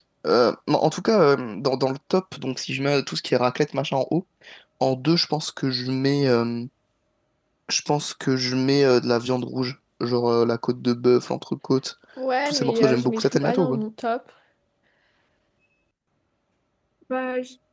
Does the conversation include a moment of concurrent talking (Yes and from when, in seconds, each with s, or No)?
Yes, from 12.4 s